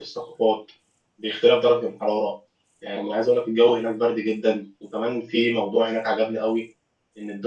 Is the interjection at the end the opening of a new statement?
No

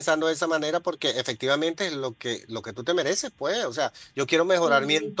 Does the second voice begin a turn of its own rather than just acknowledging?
No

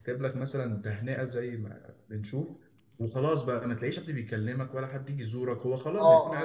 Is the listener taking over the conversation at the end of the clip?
Yes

